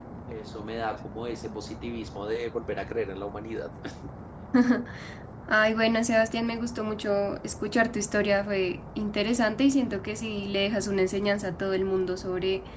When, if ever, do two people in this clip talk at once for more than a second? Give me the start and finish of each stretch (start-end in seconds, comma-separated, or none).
none